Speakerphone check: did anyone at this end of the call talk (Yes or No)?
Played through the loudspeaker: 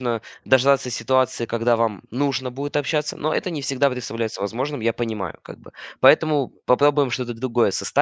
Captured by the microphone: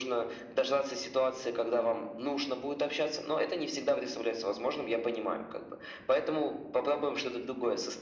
No